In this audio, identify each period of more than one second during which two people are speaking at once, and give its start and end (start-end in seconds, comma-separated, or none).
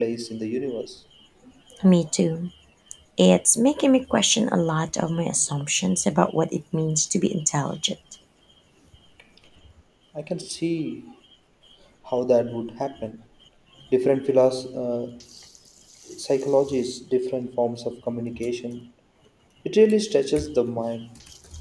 none